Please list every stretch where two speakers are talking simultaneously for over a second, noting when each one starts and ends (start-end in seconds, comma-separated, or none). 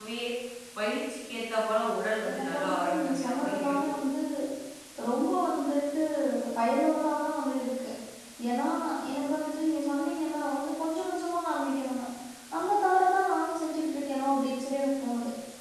2.3-3.7